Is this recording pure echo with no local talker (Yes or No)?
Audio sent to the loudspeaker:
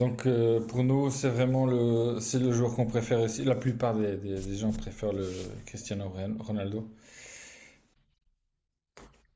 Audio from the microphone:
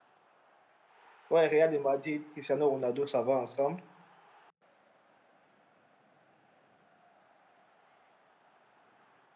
No